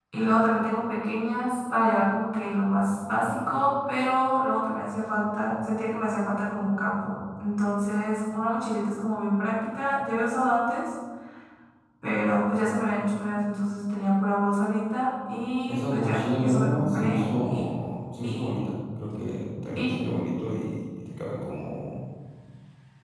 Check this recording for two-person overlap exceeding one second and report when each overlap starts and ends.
15.7-17.6

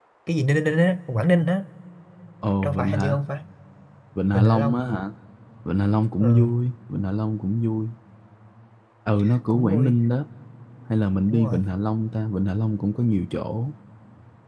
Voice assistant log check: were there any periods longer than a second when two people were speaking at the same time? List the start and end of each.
none

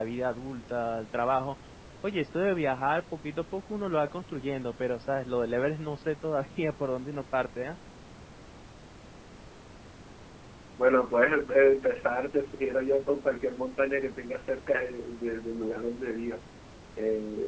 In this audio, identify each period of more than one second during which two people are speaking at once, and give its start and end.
none

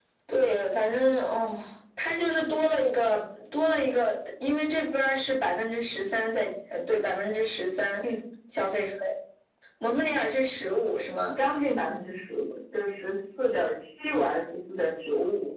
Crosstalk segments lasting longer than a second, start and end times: none

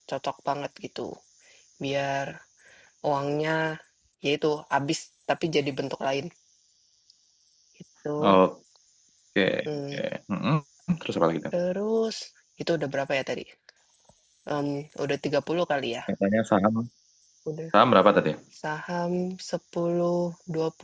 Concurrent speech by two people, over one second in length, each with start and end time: none

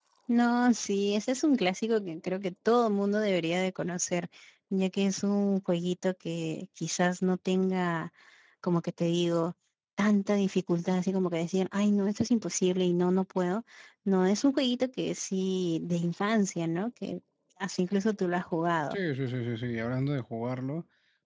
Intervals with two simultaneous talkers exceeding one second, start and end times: none

